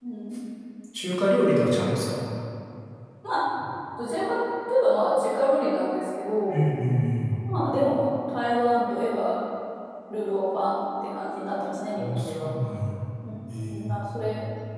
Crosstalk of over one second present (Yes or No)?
No